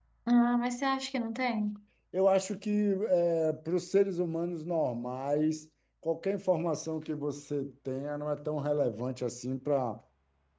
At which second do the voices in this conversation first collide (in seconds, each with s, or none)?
none